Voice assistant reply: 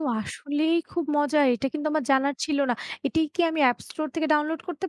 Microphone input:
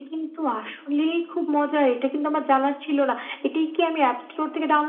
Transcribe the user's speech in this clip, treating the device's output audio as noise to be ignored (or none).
none